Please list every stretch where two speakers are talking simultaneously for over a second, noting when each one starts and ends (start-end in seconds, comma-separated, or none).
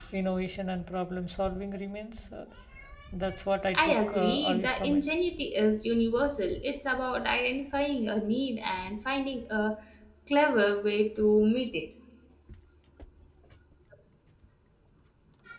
3.8-5.1